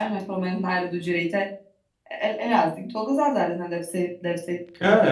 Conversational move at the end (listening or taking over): taking over